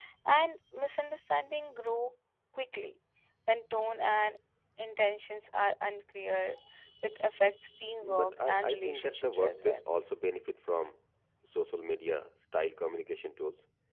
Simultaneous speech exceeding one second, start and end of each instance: 8.0-9.8

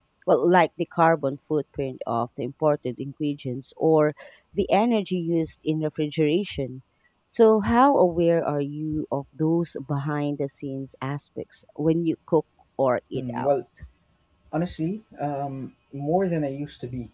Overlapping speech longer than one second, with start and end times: none

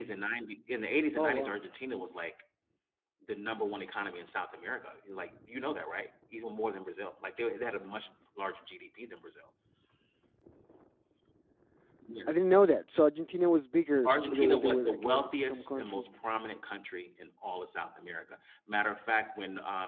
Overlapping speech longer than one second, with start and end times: 14.0-16.0

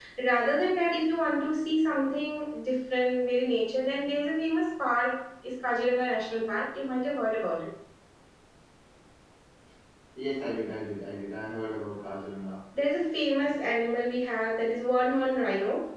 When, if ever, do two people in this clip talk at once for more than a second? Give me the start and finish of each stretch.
none

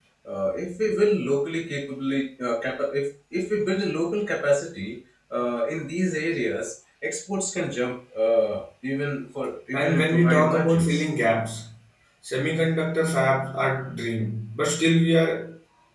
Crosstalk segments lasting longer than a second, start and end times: 9.7-11.0

